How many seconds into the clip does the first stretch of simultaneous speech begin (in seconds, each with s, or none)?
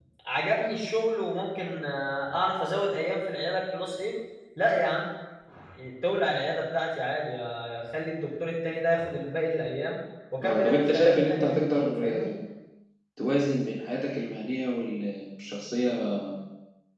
10.4 s